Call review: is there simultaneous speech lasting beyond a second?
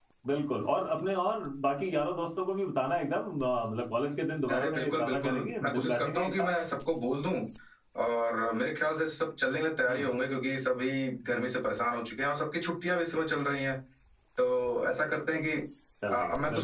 Yes, from 4.5 s

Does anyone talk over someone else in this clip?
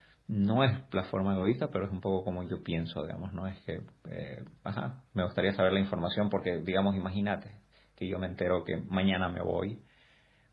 No

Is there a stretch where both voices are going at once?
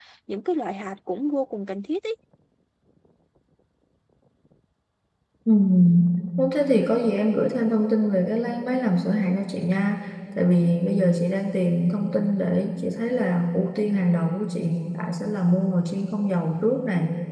No

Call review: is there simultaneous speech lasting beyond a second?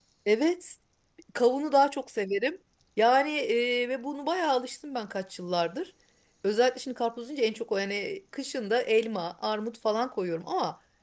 No

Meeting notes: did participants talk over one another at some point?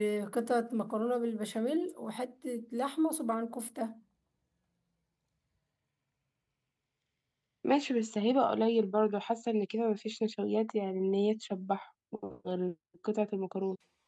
No

